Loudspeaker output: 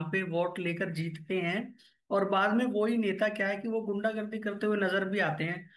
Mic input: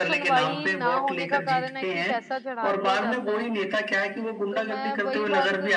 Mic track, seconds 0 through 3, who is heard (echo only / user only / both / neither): both